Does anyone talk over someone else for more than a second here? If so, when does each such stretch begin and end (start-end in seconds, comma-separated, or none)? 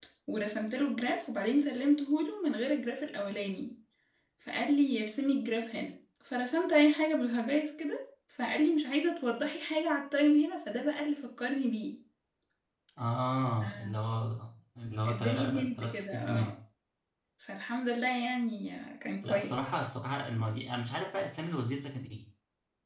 15.1-16.5